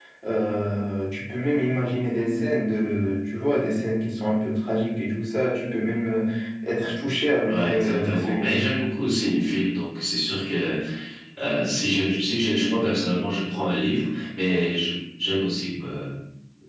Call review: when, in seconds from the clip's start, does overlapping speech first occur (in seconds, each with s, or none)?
7.5 s